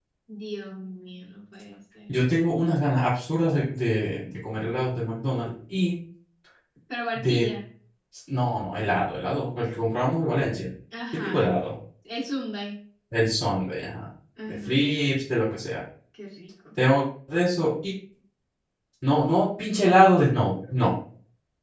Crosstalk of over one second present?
No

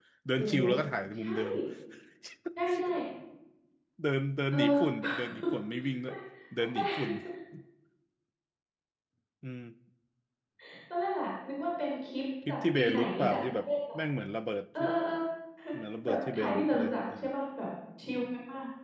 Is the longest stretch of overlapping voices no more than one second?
No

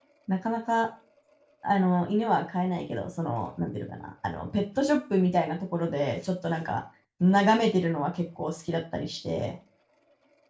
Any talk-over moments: No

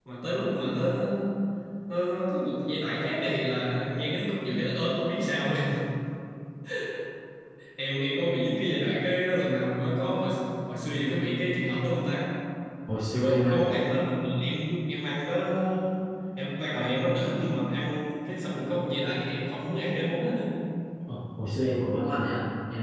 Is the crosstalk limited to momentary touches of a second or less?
Yes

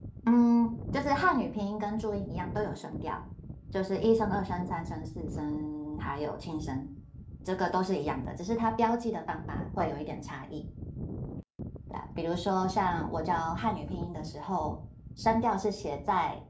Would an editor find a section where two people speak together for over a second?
No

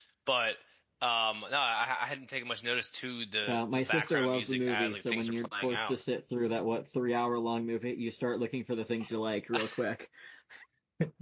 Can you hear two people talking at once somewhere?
Yes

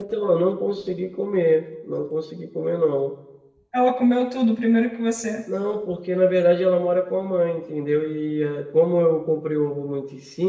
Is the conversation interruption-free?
Yes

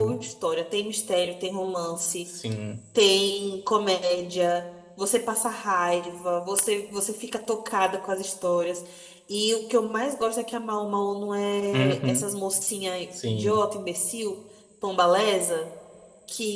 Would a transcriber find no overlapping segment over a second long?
Yes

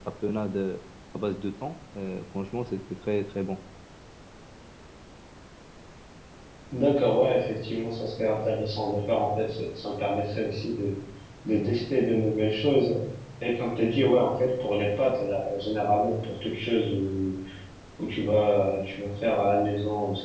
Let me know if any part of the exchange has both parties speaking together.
No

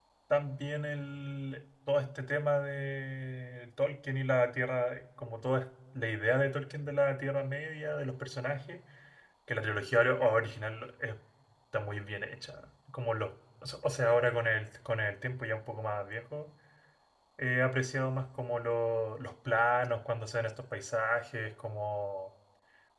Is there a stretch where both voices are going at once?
No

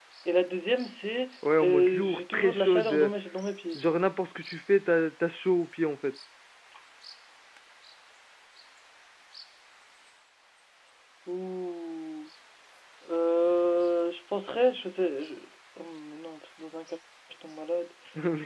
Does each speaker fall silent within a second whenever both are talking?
No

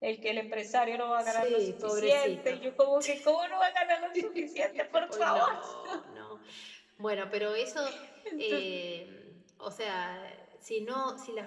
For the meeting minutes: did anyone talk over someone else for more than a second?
Yes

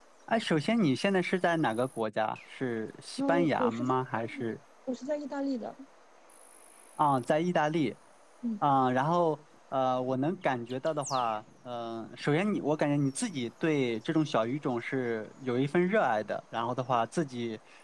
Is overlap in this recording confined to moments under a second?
No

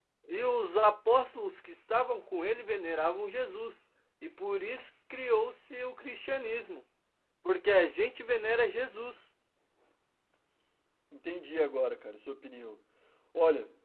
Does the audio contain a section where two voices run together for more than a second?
No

